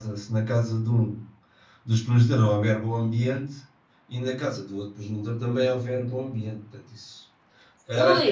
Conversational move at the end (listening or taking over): listening